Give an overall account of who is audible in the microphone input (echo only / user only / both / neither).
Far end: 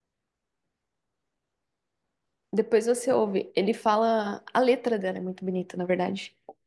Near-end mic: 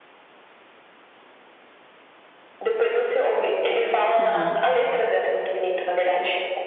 both